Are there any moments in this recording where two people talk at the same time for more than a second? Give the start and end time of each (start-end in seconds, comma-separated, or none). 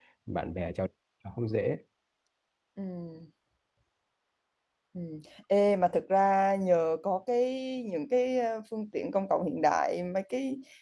none